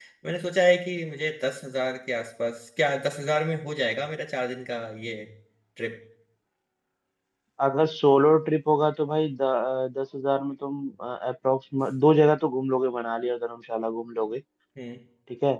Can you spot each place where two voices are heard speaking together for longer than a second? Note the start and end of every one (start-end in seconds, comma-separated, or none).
none